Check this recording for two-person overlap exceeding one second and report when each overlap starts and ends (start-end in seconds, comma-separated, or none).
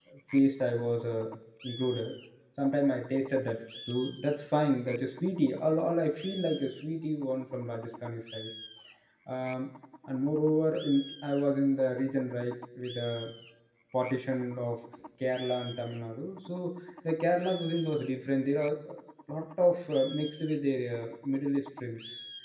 none